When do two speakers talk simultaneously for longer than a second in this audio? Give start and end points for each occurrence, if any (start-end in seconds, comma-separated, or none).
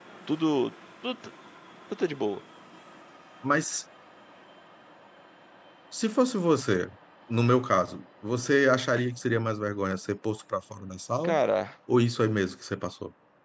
none